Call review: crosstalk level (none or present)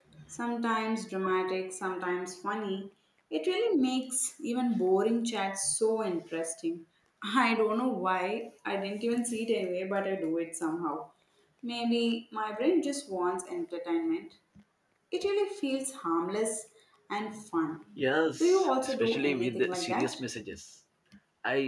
present